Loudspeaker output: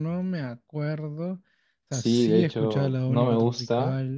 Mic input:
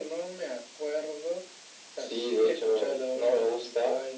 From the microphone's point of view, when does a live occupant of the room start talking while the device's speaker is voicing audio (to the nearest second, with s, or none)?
none